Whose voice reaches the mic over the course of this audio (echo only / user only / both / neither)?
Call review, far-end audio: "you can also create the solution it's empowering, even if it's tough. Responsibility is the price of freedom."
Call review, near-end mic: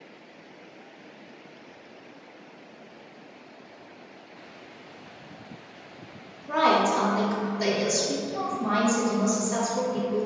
user only